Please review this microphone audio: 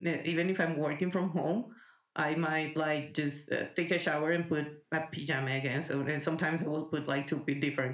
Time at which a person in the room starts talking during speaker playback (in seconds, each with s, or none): none